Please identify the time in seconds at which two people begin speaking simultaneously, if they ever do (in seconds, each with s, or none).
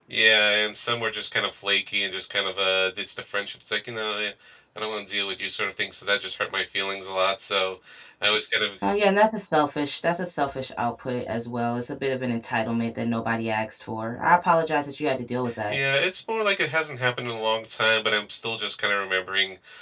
none